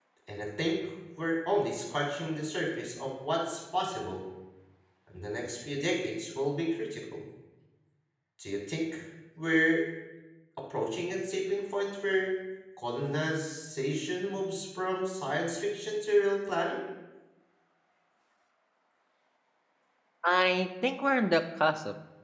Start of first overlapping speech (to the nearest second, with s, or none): none